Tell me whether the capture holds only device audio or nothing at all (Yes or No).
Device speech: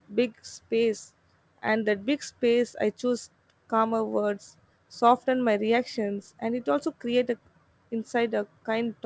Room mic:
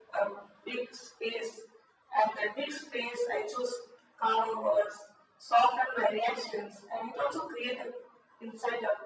Yes